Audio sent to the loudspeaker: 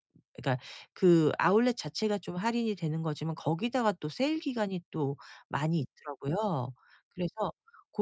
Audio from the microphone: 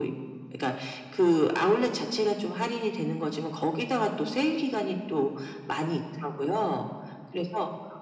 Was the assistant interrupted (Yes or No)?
No